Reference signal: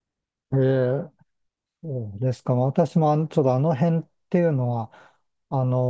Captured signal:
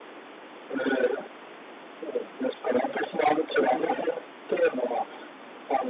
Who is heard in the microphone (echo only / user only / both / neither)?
both